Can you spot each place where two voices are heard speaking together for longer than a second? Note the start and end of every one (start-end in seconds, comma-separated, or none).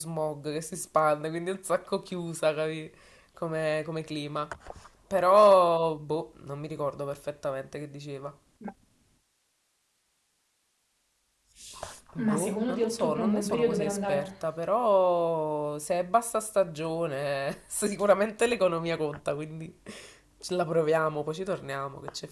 12.2-14.3